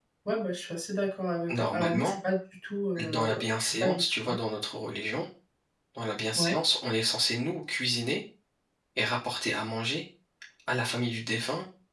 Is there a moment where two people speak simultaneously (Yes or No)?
Yes